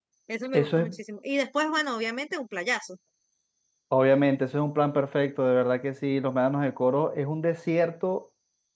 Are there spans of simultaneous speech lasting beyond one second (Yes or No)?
No